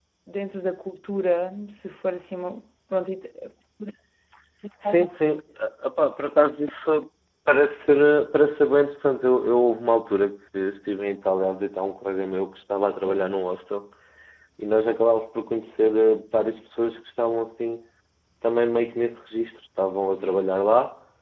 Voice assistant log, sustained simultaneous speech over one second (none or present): none